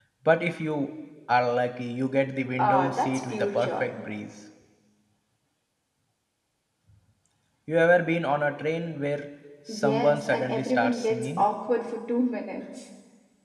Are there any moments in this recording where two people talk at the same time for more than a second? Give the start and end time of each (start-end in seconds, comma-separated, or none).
2.6-3.9, 9.7-11.4